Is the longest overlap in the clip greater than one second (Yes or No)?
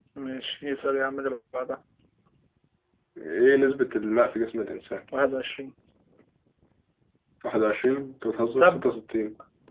No